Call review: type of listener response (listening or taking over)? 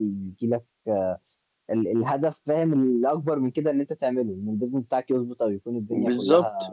taking over